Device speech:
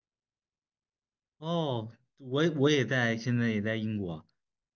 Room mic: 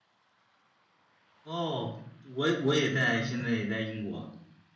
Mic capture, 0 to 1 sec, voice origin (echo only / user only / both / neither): neither